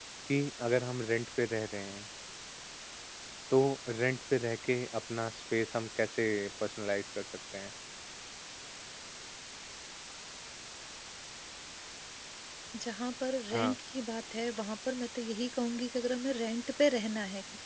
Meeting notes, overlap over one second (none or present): none